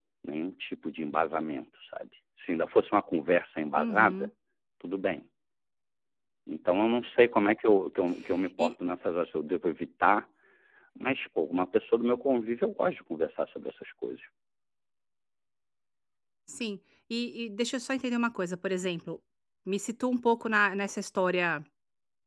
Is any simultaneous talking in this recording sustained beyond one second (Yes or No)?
No